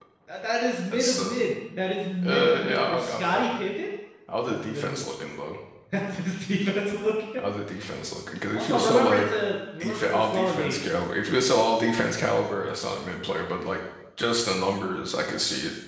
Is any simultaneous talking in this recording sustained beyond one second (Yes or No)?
Yes